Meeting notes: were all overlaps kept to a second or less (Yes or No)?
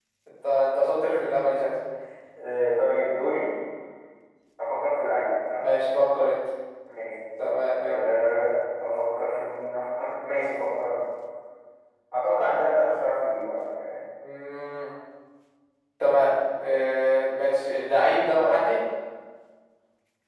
Yes